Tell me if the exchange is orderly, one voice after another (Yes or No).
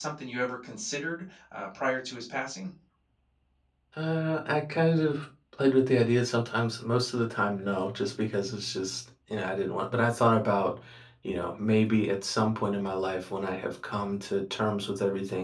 Yes